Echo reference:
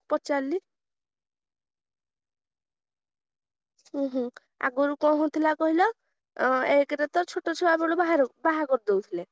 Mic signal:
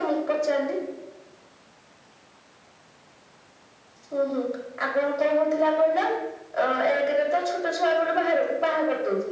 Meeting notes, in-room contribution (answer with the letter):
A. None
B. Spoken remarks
A